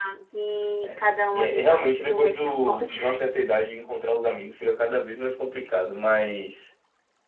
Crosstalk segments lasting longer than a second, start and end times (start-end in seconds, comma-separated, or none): 0.8-3.5